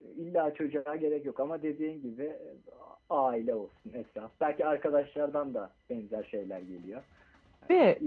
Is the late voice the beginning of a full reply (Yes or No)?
No